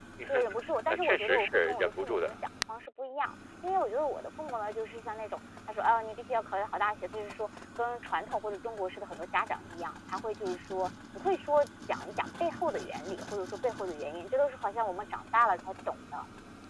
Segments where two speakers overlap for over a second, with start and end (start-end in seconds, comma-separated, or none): 0.9-2.3